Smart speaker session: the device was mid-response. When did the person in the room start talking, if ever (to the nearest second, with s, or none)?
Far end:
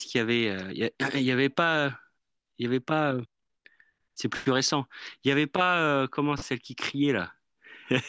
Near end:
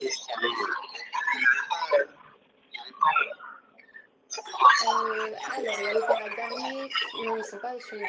5 s